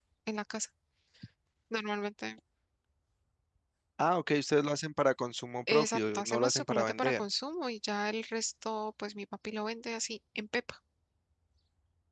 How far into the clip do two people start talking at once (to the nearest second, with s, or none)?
6 s